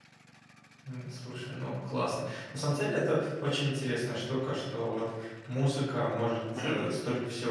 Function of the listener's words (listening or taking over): listening